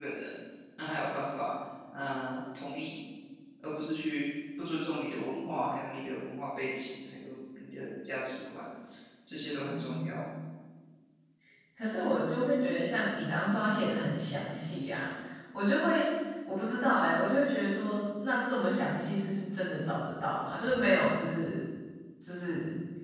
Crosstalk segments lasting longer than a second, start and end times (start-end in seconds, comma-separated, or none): none